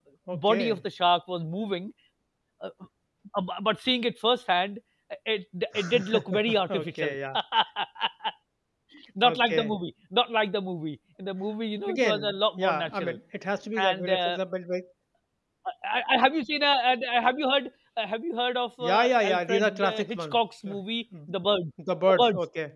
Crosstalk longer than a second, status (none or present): present